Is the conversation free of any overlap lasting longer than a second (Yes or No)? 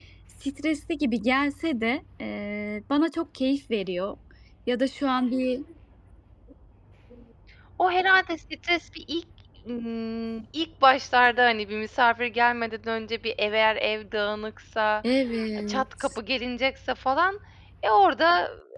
Yes